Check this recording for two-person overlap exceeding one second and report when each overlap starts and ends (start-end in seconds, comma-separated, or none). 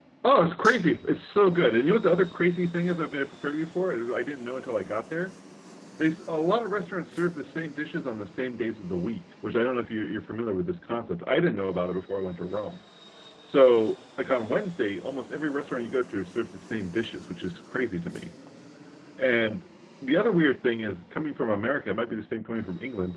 none